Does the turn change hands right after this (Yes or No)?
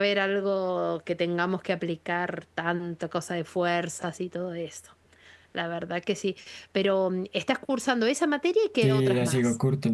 Yes